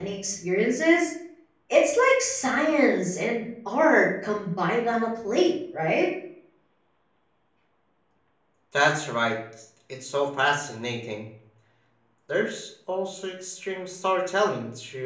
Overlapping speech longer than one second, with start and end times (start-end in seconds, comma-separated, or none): none